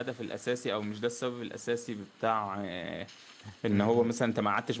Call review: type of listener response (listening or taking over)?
listening